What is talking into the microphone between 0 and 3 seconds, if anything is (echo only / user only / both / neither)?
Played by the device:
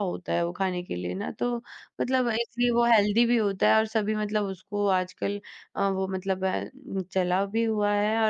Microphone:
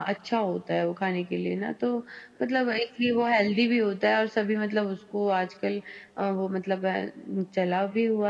echo only